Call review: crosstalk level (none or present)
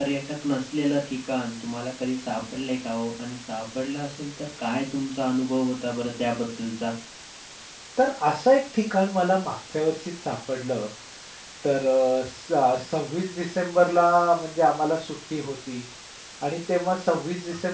none